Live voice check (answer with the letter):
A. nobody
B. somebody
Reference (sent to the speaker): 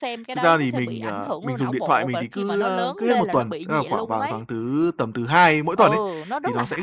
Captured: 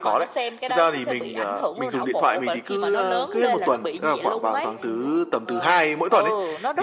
B